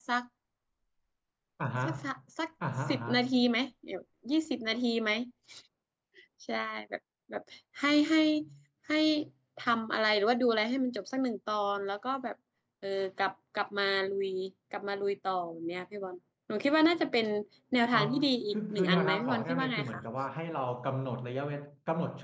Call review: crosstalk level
present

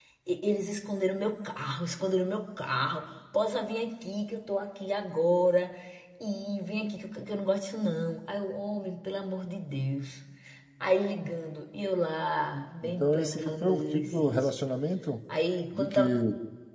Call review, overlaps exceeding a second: present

